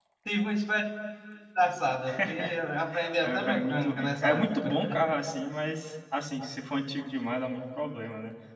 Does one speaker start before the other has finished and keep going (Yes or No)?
Yes